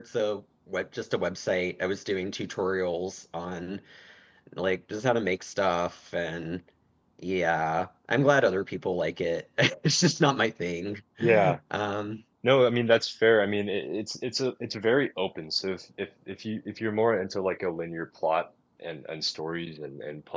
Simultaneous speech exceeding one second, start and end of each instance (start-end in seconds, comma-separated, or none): none